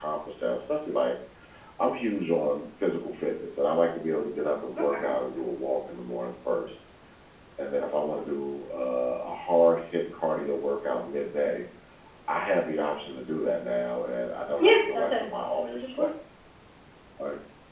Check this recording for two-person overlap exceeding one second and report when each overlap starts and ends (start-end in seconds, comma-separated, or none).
14.6-16.1